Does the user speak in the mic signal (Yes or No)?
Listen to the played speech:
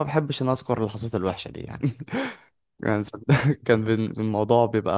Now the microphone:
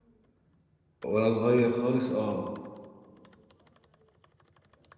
Yes